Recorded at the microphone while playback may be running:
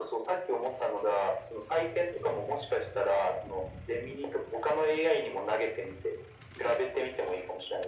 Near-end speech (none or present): none